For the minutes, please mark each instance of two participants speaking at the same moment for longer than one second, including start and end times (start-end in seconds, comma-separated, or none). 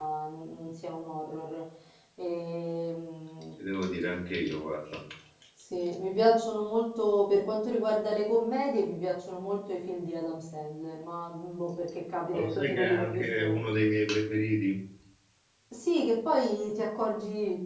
12.3-13.6